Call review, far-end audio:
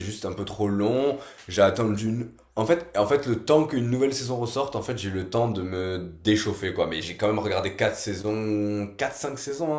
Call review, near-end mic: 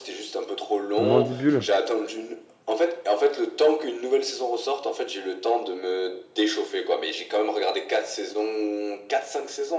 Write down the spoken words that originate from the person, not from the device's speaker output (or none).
Mandibule,